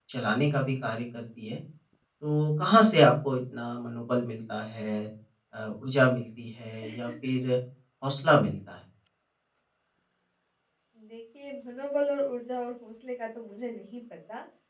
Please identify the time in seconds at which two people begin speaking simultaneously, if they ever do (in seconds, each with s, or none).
none